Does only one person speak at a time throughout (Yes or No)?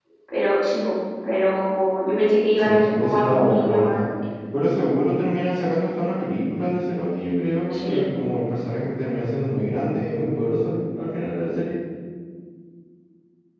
No